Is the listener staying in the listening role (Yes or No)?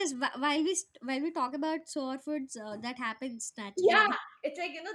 No